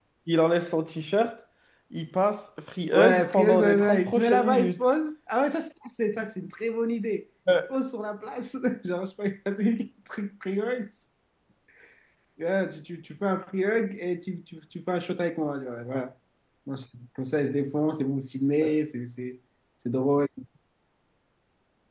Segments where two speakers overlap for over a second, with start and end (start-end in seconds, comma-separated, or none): 2.9-4.8